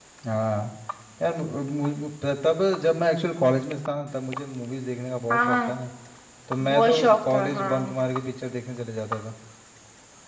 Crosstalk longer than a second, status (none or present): present